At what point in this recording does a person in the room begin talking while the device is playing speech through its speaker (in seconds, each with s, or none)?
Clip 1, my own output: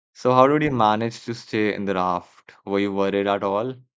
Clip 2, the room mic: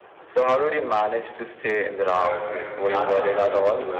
2.0 s